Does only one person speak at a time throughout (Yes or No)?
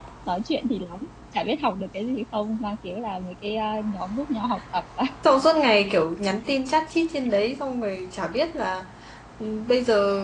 Yes